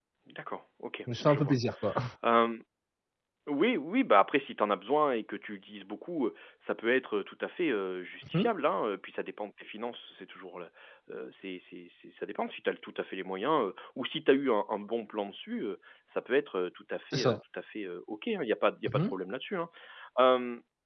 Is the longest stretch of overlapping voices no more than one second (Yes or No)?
Yes